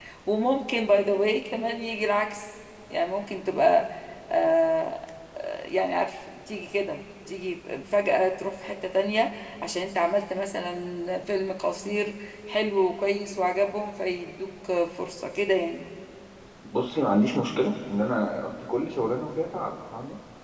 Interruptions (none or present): none